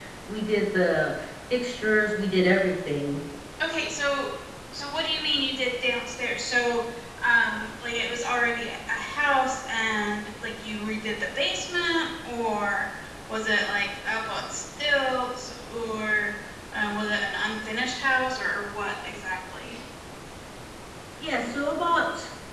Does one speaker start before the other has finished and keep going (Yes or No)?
No